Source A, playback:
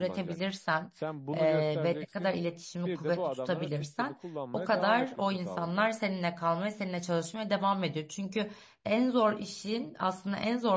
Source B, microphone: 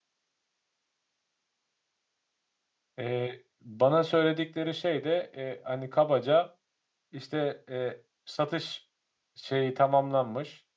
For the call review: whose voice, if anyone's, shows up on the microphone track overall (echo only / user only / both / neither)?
user only